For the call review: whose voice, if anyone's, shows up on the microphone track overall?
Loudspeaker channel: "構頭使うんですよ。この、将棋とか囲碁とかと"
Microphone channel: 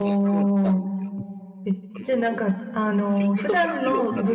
both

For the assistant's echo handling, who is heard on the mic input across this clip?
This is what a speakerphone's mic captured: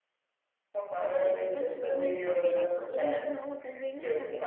both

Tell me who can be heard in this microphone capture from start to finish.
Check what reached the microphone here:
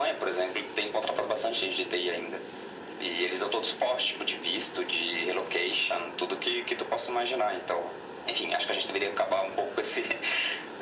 echo only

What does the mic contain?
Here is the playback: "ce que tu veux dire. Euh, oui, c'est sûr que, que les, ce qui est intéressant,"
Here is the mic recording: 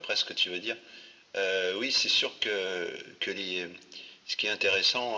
echo only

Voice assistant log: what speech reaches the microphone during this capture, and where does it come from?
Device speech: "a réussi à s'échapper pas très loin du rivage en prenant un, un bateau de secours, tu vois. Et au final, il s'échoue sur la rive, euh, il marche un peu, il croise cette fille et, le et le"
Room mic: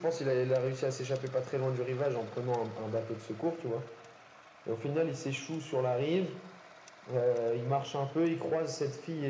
echo only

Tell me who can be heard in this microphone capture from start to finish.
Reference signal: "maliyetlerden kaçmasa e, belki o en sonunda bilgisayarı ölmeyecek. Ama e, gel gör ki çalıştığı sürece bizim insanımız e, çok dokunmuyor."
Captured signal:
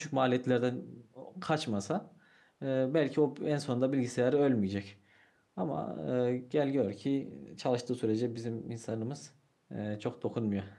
echo only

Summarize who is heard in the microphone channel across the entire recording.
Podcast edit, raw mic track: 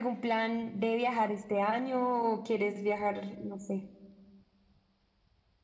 echo only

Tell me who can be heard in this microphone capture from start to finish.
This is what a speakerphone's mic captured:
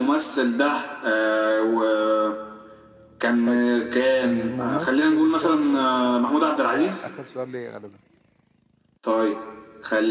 both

